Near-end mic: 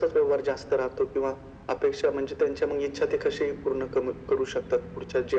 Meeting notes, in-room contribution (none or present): none